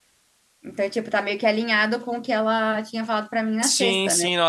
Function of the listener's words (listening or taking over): taking over